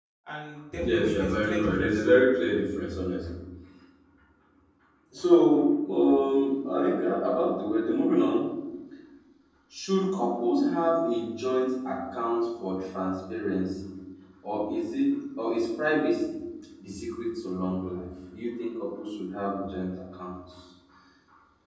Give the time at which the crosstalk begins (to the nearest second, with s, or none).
1 s